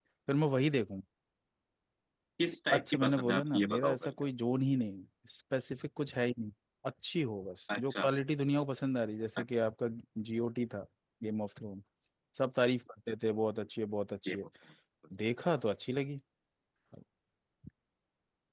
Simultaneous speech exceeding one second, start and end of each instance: 2.7-4.1

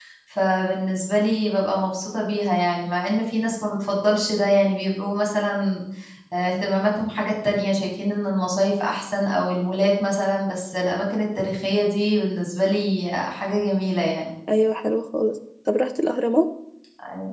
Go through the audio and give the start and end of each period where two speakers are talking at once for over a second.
none

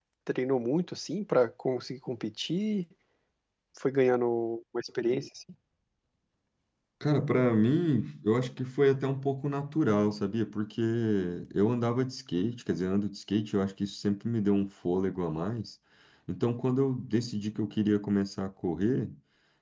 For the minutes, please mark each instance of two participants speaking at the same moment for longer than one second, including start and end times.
none

